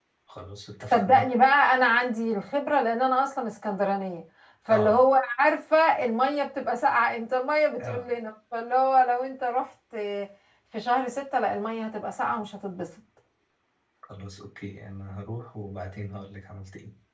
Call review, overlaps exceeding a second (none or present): none